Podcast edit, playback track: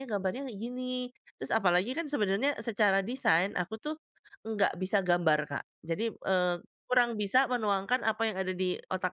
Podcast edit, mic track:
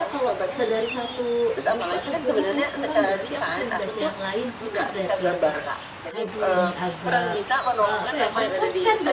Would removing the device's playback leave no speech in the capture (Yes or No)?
No